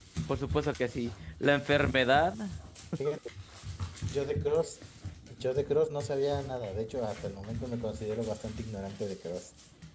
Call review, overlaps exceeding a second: none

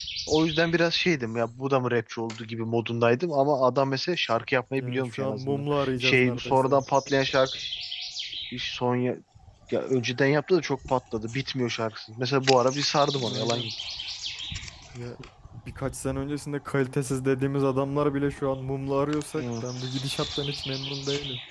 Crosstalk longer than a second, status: present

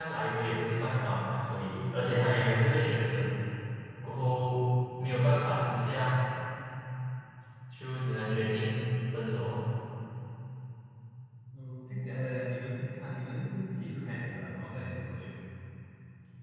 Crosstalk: none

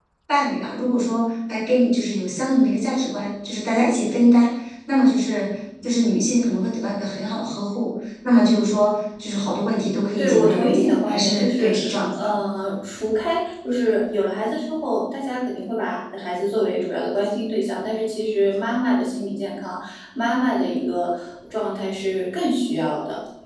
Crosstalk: present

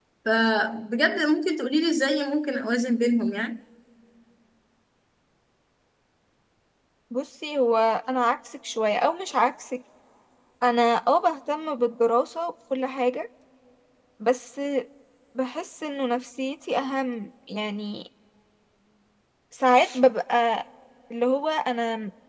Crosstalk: none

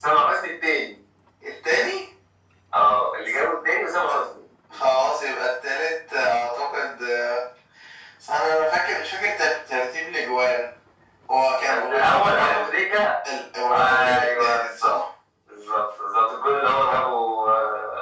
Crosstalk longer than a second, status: present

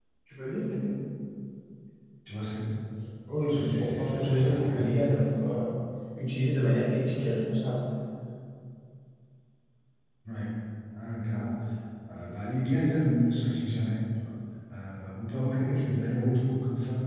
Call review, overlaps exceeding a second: present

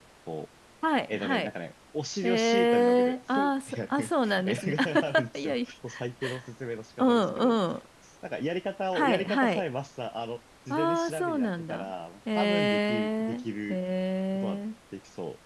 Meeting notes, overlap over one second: present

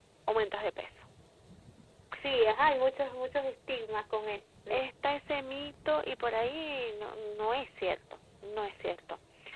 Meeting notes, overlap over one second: none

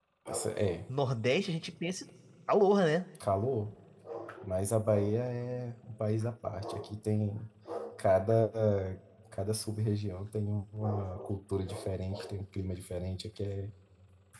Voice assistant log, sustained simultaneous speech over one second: none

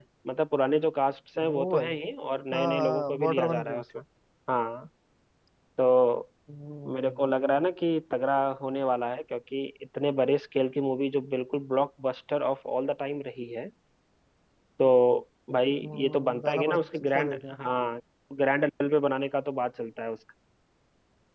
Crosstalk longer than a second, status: present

